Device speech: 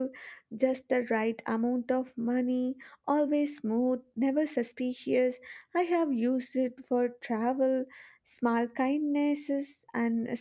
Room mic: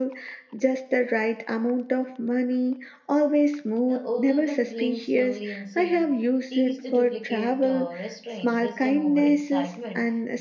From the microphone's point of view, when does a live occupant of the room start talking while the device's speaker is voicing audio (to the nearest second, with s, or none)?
4 s